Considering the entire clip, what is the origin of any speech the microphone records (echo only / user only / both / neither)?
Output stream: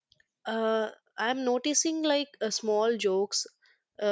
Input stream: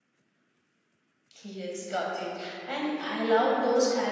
user only